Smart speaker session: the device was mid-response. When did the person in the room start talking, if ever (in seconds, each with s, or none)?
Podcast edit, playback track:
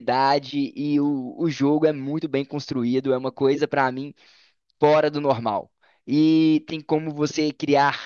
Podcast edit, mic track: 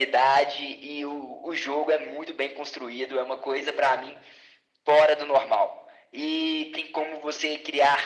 none